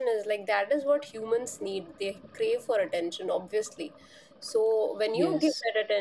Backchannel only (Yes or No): Yes